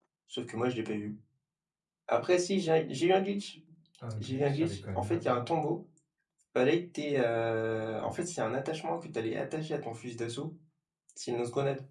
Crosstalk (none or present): present